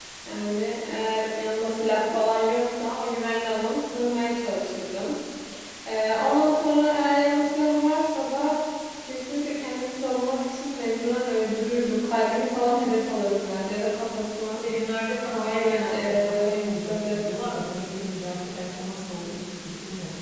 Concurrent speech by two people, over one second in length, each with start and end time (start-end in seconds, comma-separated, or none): 15.3-16.5